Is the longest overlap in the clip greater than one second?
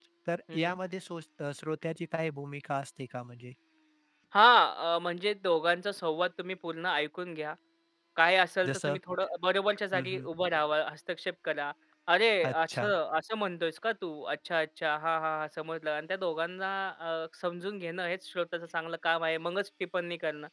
No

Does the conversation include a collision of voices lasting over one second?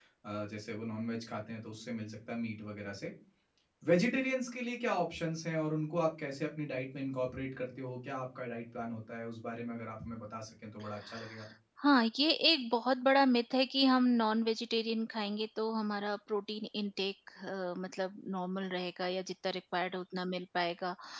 No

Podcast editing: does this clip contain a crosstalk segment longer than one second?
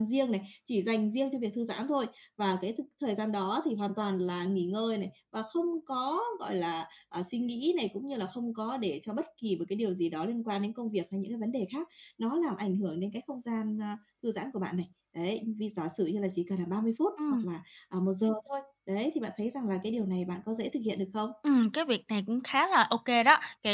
No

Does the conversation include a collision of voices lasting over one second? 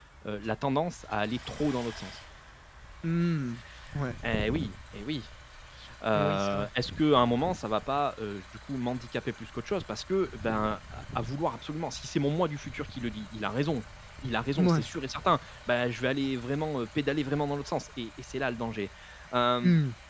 No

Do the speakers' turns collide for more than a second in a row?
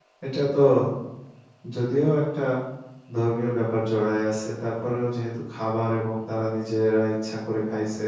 No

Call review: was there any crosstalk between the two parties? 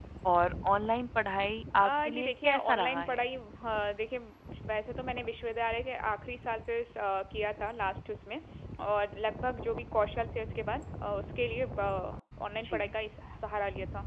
Yes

